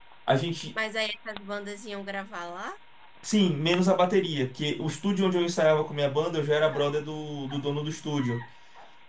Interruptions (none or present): none